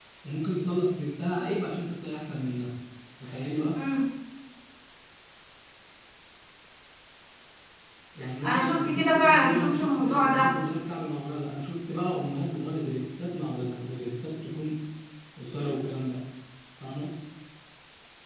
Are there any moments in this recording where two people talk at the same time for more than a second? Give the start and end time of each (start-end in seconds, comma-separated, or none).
8.4-10.5